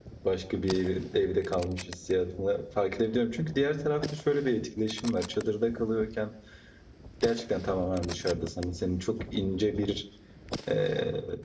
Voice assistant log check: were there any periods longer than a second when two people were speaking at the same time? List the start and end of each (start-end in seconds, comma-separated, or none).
none